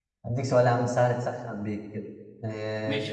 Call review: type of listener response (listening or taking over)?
taking over